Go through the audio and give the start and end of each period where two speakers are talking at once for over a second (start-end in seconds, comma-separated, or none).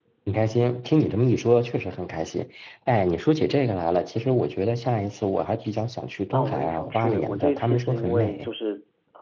6.3-8.5